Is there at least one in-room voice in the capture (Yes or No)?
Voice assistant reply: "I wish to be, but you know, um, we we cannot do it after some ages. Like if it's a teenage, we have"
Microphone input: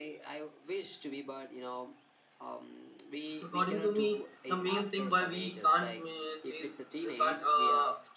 Yes